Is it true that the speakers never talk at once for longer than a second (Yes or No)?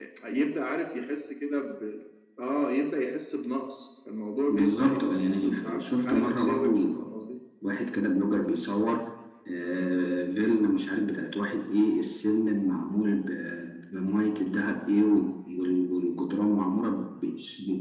No